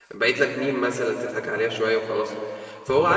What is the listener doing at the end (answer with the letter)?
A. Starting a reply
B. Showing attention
B